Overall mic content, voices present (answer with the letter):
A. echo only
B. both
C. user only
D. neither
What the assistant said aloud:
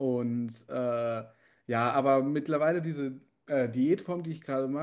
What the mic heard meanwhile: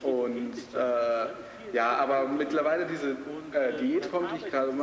B